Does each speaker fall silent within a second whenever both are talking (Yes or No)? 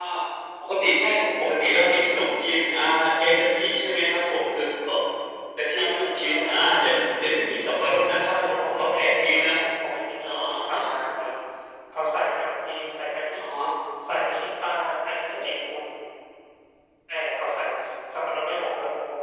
No